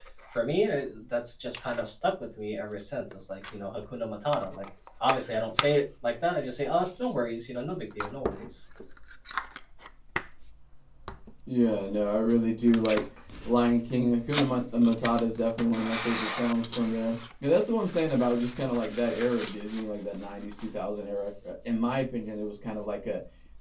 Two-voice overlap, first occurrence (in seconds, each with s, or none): none